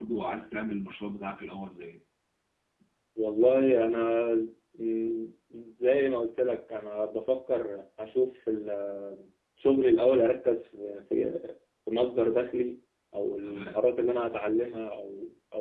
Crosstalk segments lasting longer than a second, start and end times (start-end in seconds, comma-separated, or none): none